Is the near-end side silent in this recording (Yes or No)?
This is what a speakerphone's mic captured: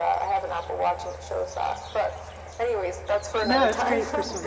No